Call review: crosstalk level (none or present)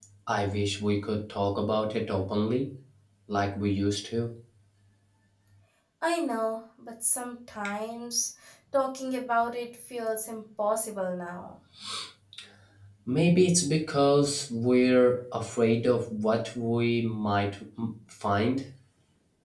none